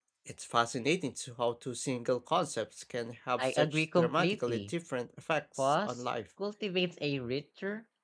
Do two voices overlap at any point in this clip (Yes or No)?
Yes